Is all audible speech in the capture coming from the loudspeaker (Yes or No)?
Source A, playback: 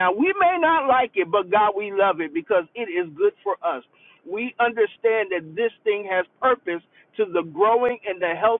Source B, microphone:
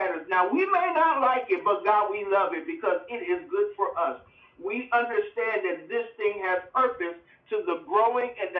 Yes